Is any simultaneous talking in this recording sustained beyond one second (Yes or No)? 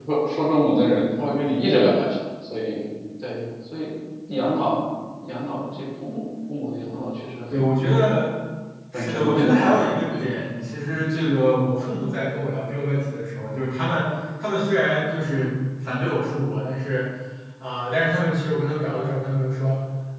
Yes